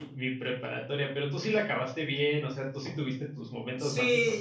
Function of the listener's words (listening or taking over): taking over